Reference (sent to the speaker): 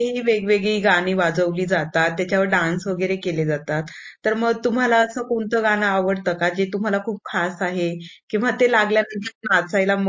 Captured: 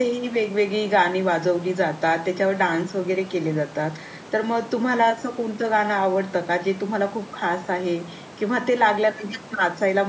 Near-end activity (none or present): none